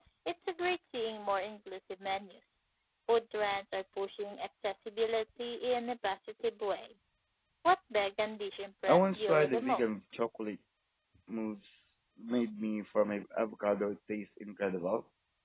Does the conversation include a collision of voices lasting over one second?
Yes, from 8.9 s

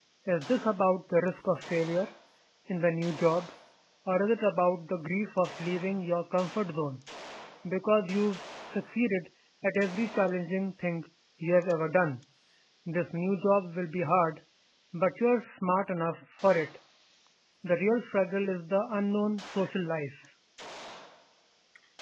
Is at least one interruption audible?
No

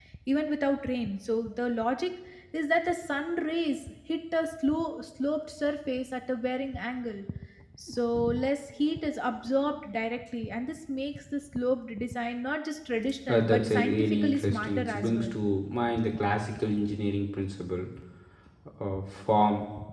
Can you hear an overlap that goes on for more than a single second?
Yes, from 13.3 s

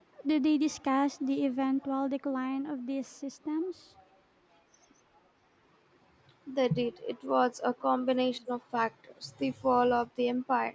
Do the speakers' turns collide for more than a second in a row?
No

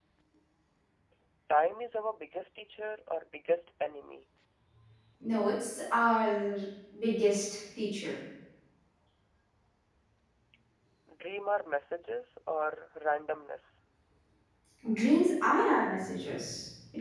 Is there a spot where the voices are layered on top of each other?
No

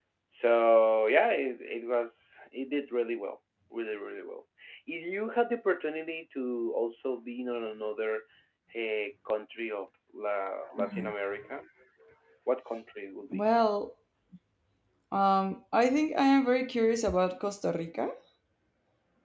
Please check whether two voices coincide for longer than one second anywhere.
No

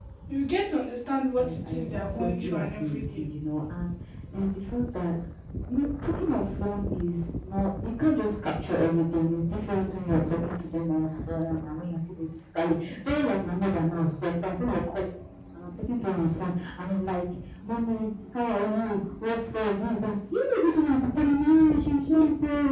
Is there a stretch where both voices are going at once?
Yes, from 1.4 s

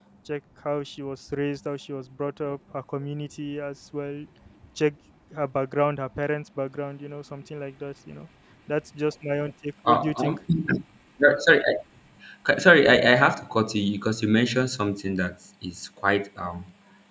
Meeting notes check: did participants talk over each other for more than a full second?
No

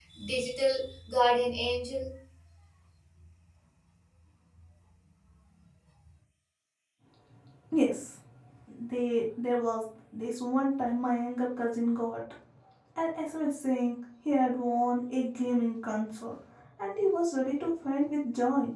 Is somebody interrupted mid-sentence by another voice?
No

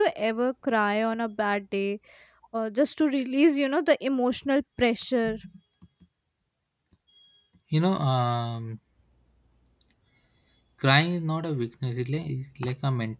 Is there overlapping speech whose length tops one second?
No

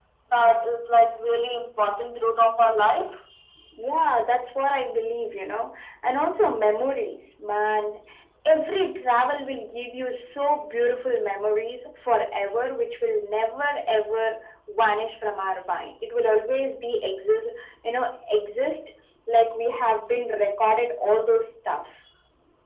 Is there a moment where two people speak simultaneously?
No

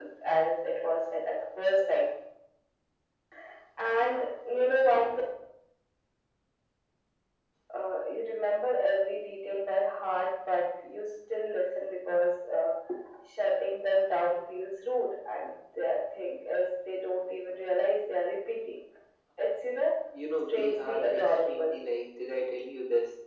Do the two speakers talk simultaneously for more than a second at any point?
Yes, from 20.5 s

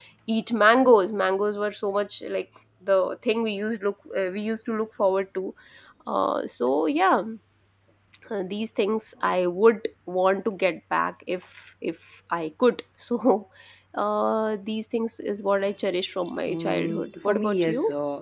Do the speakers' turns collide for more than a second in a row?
Yes, from 16.4 s

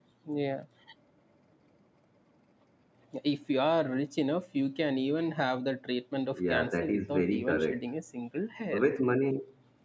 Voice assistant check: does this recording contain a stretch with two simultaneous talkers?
Yes, from 6.3 s

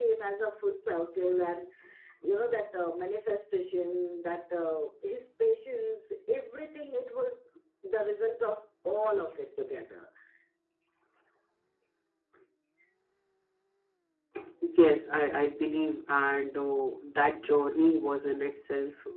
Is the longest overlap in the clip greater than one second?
No

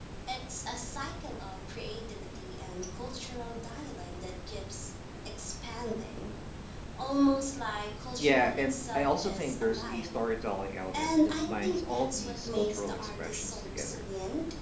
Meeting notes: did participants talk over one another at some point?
Yes, from 8.2 s

